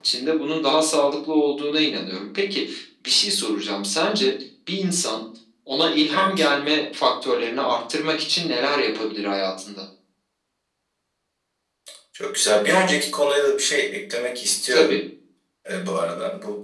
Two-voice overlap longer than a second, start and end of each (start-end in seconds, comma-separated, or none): none